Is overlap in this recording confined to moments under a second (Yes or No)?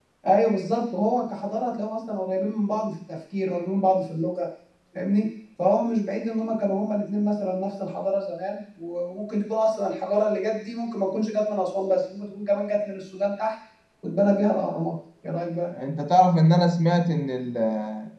Yes